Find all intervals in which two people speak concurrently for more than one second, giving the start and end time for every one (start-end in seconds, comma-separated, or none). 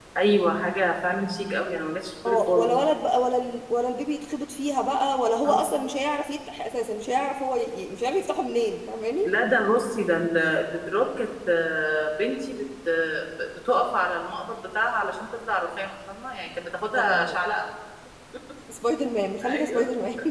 none